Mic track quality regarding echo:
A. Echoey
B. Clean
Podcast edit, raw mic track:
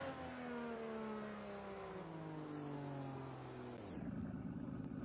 B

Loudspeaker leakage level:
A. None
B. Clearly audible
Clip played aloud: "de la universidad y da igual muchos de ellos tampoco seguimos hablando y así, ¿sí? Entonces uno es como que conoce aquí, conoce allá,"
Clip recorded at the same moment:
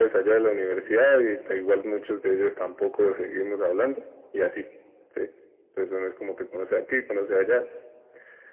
B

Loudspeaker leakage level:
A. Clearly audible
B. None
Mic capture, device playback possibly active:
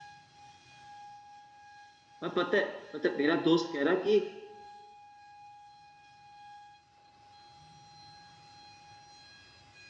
B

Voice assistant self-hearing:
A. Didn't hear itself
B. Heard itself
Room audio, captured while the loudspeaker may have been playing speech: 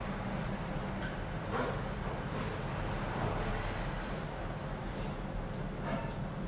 A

